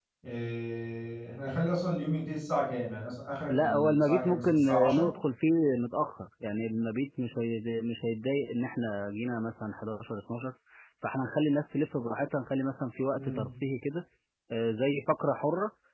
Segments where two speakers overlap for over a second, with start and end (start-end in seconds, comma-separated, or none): 3.5-5.1